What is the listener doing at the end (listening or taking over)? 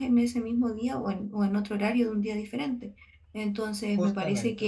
listening